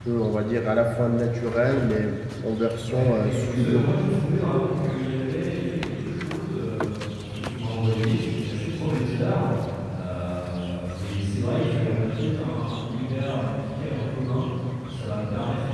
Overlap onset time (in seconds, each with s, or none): 2.8 s